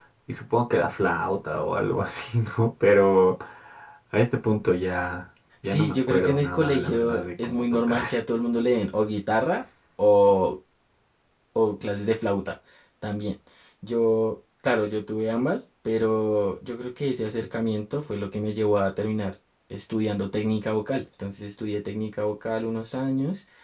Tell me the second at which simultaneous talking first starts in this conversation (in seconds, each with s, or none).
5.6 s